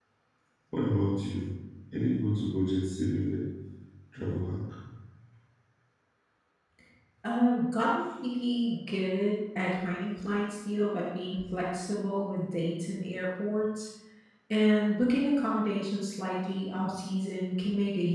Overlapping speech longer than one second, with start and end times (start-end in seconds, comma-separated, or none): none